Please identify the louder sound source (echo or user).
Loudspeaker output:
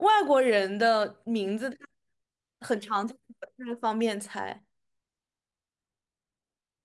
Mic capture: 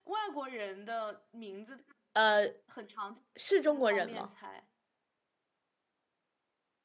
user